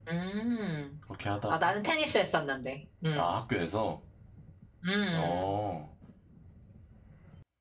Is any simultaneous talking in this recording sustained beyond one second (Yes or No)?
No